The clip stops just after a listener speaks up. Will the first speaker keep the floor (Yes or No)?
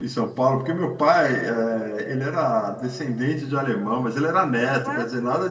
Yes